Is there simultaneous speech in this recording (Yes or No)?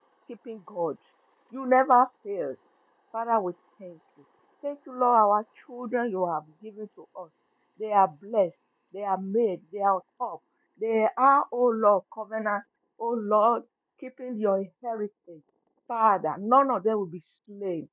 No